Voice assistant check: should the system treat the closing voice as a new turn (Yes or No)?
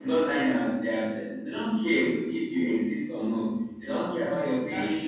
No